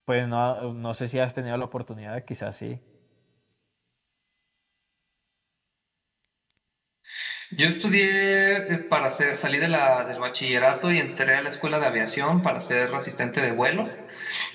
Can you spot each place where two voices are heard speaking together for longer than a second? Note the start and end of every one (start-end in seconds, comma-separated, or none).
none